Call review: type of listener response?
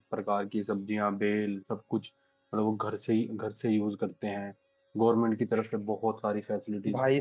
taking over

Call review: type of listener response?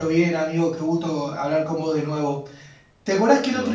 listening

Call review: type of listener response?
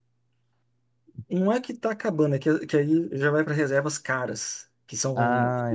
listening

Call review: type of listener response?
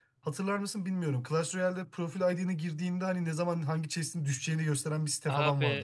taking over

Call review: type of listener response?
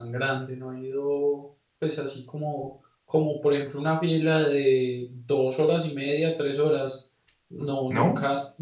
listening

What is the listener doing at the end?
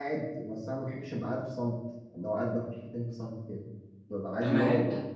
listening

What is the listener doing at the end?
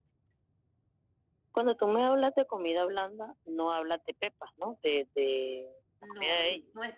taking over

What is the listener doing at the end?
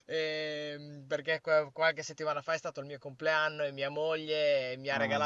listening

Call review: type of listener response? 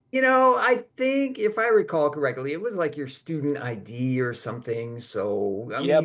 taking over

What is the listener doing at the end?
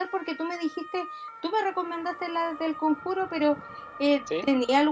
listening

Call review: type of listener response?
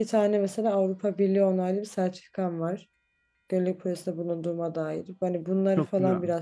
listening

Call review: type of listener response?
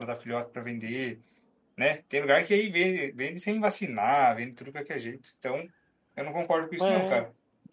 taking over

